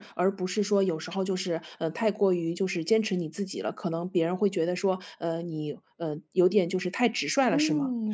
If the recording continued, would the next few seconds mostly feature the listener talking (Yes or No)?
Yes